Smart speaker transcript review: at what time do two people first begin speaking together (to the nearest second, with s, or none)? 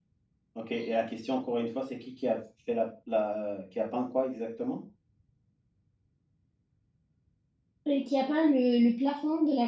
none